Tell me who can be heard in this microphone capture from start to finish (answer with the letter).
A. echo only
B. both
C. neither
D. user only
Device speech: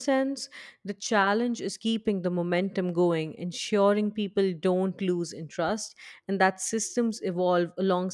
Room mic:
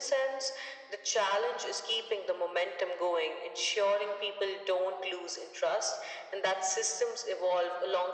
A